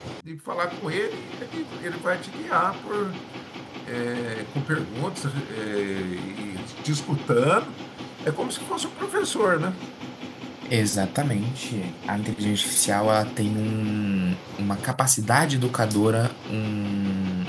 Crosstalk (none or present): none